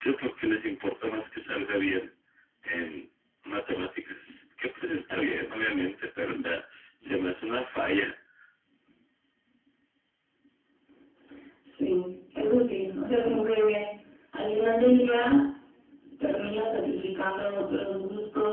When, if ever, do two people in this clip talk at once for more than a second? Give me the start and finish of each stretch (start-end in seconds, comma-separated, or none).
none